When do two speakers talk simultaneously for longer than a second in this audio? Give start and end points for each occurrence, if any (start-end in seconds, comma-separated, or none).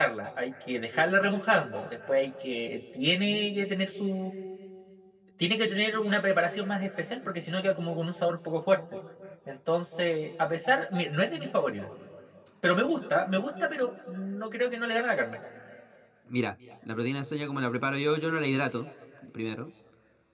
none